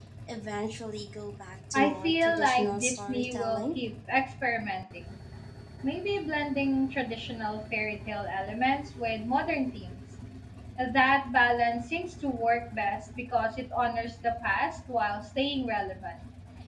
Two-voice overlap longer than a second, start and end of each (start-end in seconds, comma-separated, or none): 1.7-3.8